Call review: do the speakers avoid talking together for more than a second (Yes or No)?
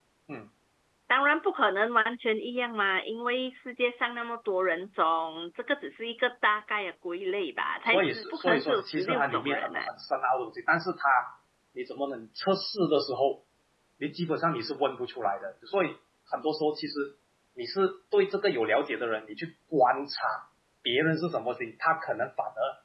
No